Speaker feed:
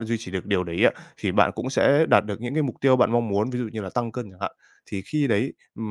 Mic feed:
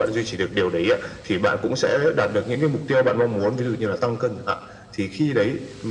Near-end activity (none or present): none